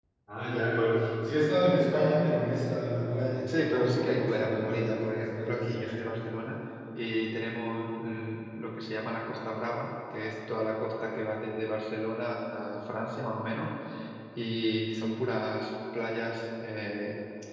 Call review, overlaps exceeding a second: present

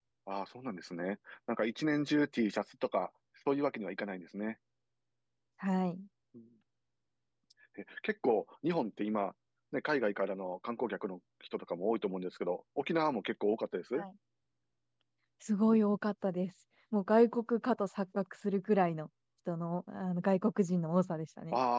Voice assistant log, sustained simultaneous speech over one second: none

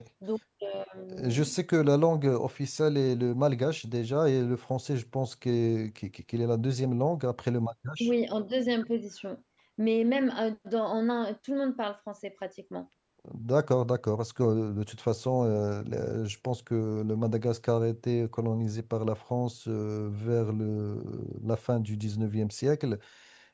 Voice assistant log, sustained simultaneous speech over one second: none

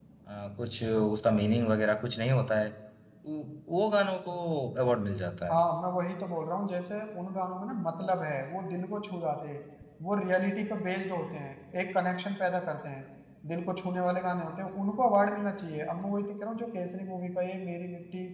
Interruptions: none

